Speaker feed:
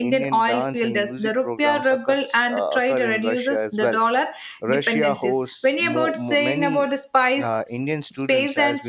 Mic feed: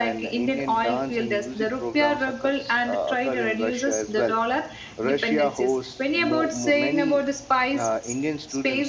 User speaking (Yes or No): No